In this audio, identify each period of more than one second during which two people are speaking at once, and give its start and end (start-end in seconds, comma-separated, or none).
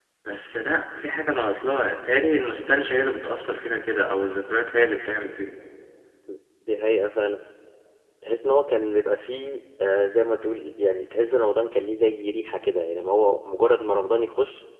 none